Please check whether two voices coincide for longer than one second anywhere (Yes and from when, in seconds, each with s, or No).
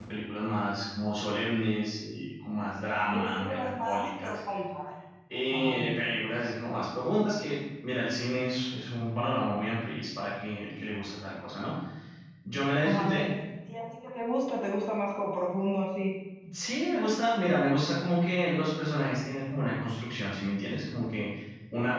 Yes, from 3.1 s